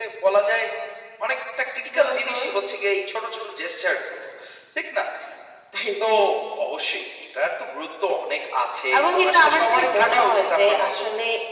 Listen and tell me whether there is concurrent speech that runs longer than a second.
Yes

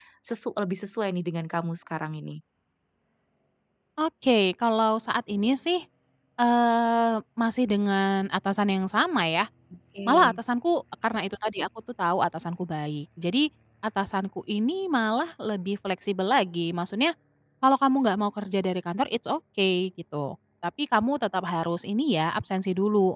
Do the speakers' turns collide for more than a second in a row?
No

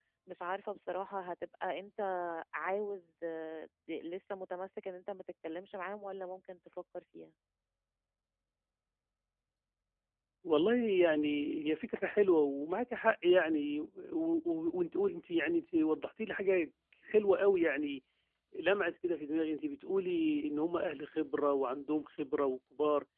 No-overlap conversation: Yes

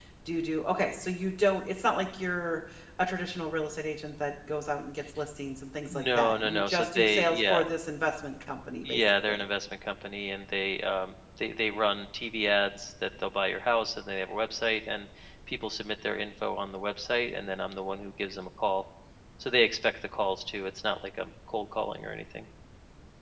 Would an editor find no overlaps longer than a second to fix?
No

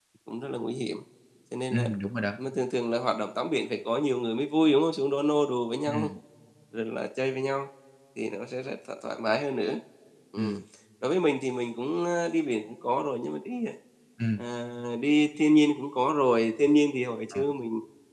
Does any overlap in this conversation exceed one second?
No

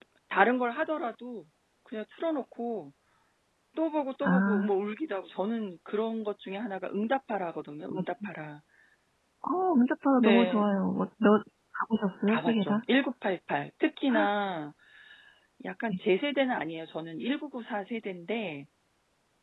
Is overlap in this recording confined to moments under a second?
Yes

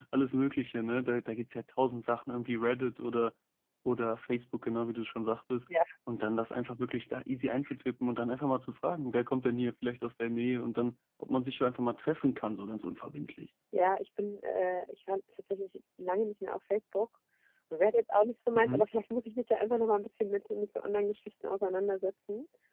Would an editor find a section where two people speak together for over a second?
No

